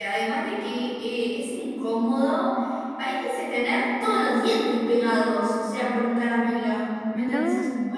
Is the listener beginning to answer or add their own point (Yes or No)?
No